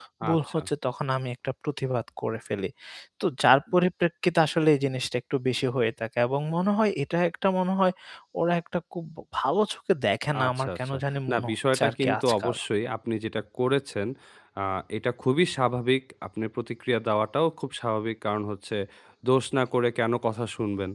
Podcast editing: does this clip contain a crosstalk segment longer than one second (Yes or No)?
Yes